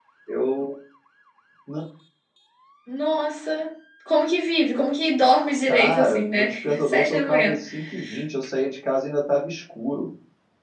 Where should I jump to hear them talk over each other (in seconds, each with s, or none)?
5.7 s